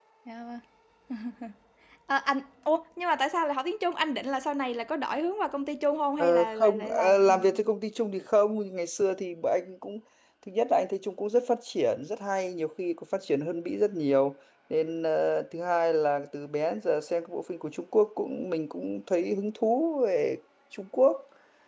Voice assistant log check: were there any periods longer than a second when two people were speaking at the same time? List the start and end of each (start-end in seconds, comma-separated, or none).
6.2-7.6